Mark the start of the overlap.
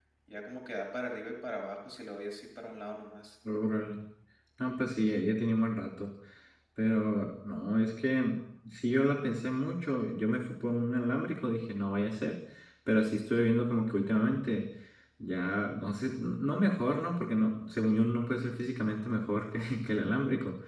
none

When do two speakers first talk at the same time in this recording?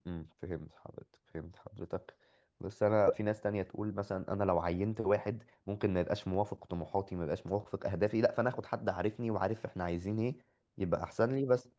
none

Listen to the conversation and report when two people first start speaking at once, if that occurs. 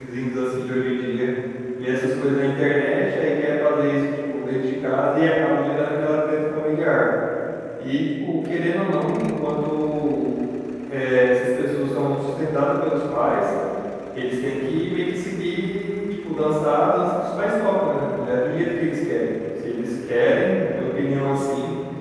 none

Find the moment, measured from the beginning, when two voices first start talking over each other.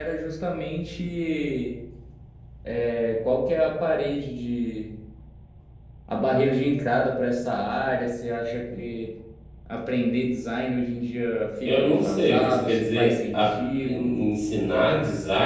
12 s

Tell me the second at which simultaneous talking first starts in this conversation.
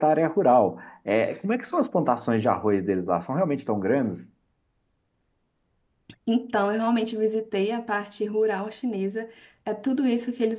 none

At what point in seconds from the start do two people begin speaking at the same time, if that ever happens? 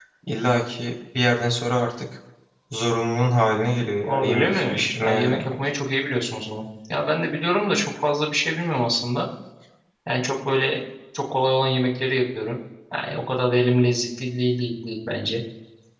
4 s

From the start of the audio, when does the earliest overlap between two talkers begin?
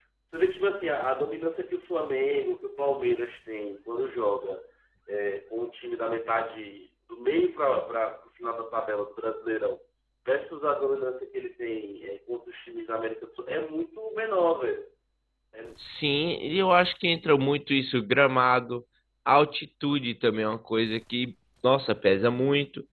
none

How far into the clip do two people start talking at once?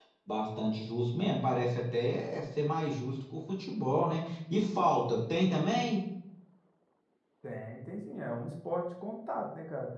none

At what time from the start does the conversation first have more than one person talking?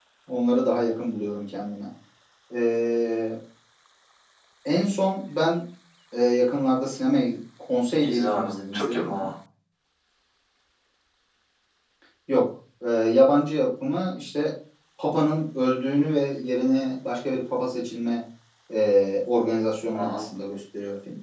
8 s

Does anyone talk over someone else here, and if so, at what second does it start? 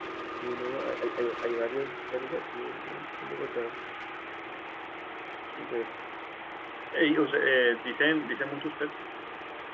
none

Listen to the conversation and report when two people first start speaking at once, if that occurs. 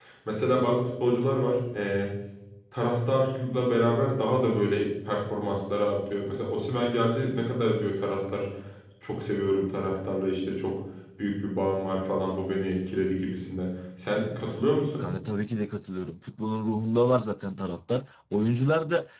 none

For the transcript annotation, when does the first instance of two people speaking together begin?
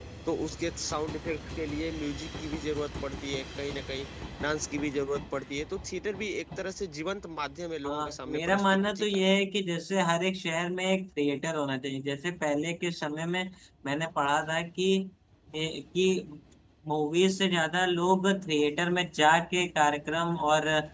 8 s

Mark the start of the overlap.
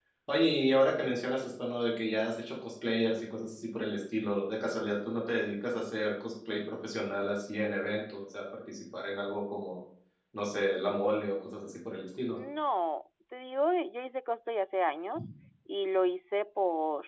none

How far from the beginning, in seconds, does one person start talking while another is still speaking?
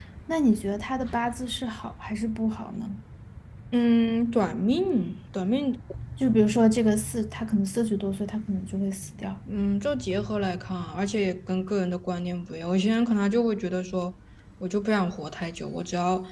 none

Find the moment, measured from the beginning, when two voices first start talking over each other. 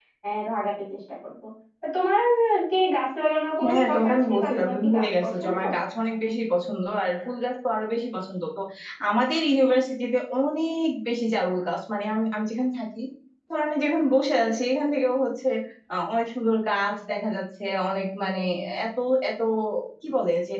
4 s

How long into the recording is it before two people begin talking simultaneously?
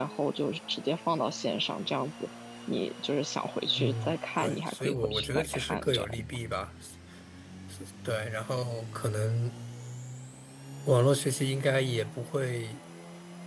4 s

